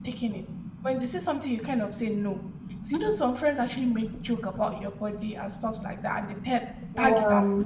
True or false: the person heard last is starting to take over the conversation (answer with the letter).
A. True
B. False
B